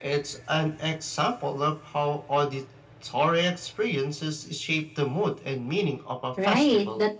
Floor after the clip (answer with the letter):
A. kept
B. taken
B